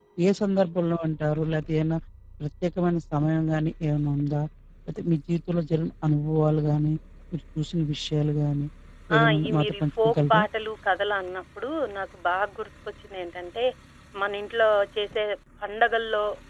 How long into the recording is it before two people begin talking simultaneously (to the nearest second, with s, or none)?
9 s